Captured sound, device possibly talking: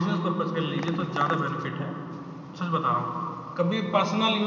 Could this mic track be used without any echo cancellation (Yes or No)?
No